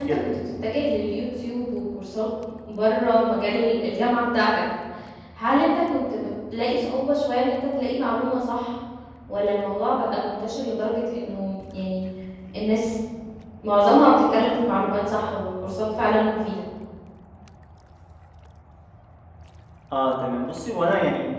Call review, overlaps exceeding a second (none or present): none